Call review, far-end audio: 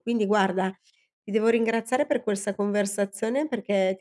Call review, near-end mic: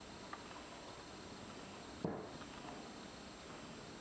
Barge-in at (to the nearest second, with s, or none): none